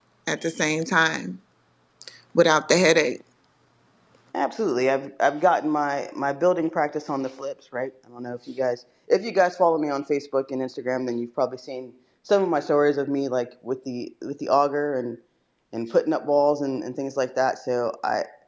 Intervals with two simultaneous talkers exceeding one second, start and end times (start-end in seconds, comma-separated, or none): none